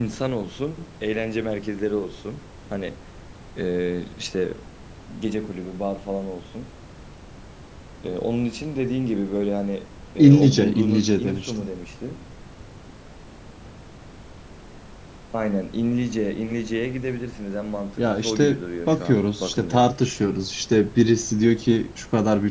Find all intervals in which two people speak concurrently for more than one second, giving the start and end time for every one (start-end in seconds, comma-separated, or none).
10.2-11.5, 18.0-19.9